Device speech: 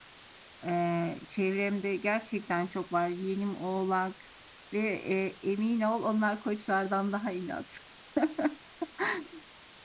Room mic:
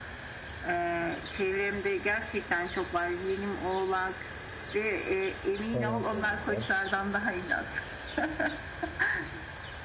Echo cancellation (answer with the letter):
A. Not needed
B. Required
B